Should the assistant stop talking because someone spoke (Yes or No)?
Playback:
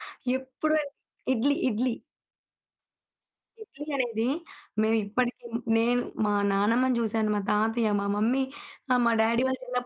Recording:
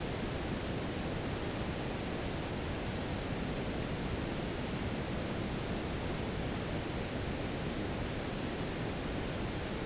No